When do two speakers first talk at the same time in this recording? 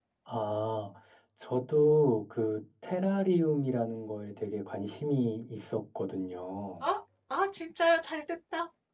none

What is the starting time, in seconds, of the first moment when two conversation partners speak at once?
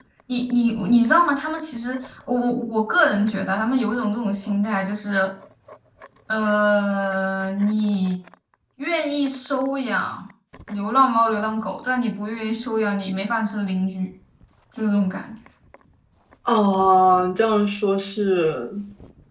none

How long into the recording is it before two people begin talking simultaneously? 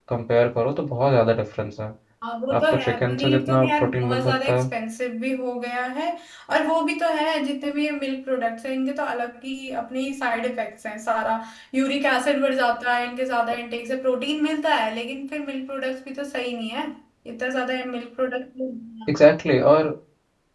3 s

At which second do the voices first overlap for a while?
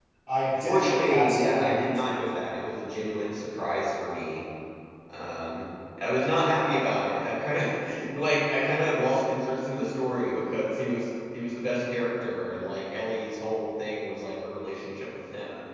1 s

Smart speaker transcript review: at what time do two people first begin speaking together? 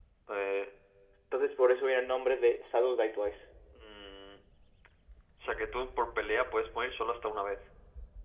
none

